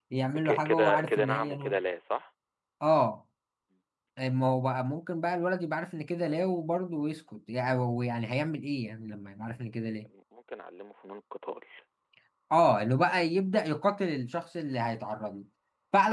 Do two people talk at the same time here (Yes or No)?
Yes